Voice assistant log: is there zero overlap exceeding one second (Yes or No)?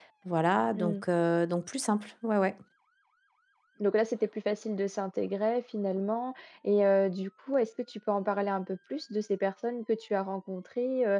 Yes